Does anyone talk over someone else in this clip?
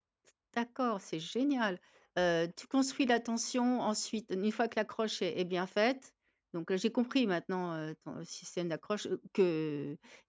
No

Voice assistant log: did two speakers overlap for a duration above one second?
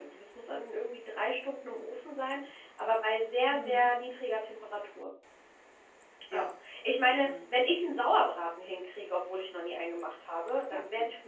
No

